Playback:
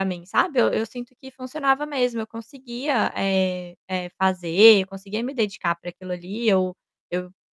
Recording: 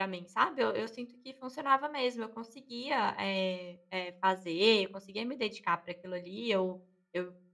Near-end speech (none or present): none